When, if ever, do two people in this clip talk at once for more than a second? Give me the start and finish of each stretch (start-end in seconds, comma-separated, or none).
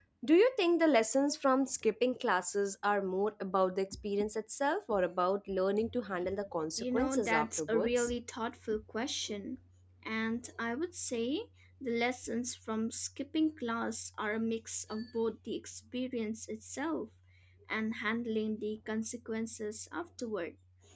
6.8-8.1